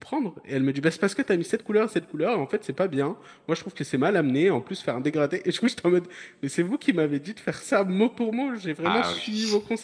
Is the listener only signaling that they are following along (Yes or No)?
Yes